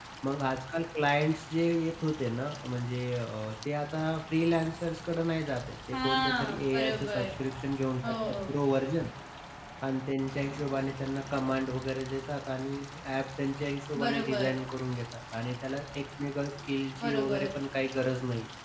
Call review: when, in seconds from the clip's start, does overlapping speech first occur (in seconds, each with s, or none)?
5.9 s